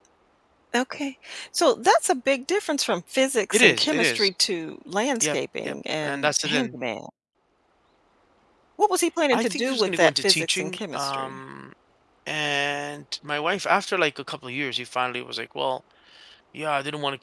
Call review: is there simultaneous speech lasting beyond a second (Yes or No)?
Yes